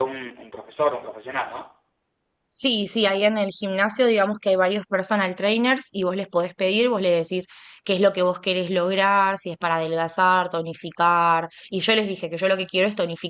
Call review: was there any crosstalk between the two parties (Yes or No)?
No